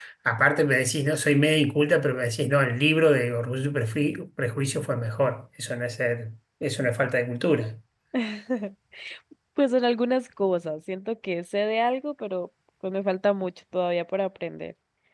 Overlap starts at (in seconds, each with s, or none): none